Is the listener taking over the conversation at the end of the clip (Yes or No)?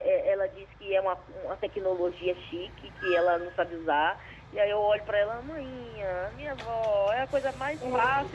No